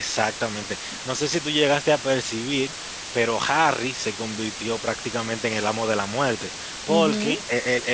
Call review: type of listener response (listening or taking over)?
listening